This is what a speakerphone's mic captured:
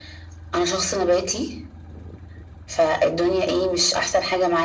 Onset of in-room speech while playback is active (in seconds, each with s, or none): none